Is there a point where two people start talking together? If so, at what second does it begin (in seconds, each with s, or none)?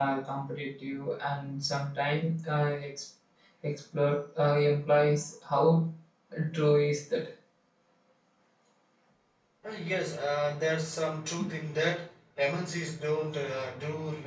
none